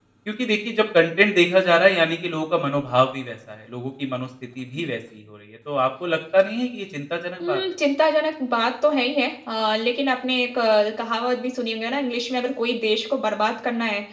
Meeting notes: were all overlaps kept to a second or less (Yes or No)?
Yes